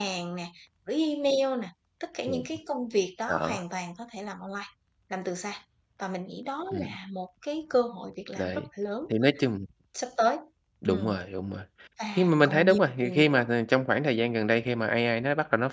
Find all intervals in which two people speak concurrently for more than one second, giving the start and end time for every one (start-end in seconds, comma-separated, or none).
12.2-13.4